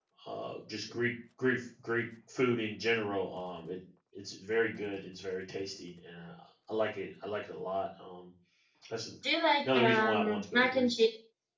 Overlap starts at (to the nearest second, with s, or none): 10 s